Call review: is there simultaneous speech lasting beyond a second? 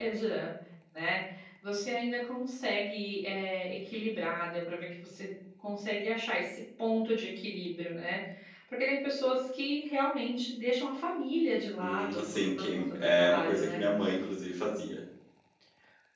Yes, from 11.8 s

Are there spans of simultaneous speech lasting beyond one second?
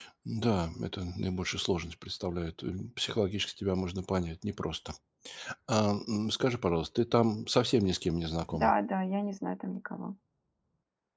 No

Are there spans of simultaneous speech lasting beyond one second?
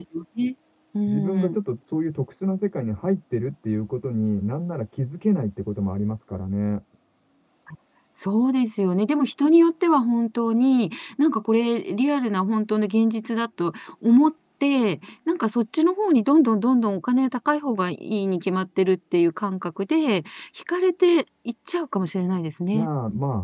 No

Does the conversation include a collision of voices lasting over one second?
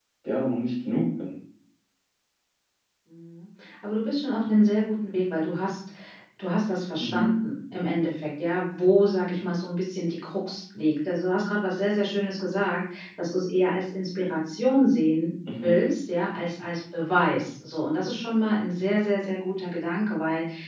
No

